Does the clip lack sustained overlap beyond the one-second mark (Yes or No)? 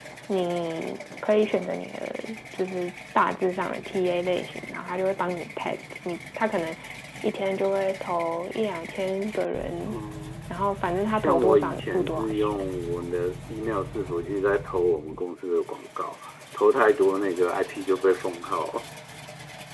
No